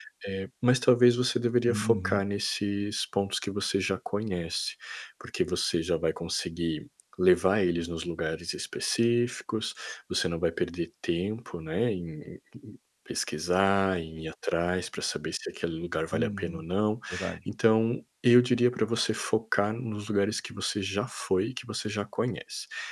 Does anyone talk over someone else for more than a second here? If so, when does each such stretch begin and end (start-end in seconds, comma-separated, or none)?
none